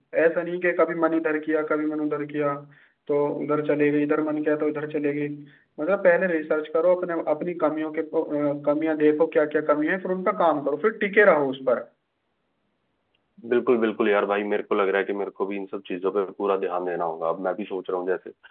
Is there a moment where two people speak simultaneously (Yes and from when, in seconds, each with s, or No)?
No